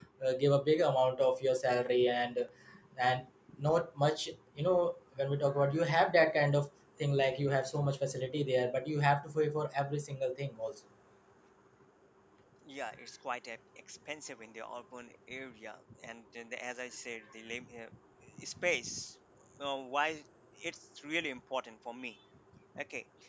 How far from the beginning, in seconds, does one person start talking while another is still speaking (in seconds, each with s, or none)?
none